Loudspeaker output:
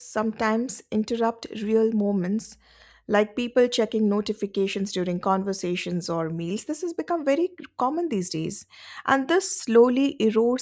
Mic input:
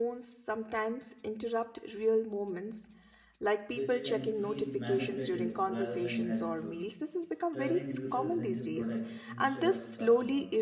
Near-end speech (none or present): present